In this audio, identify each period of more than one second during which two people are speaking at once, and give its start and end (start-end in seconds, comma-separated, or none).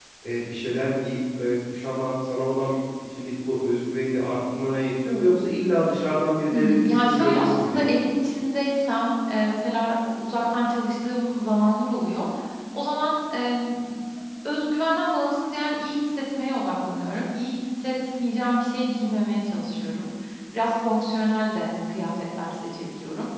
6.5-7.9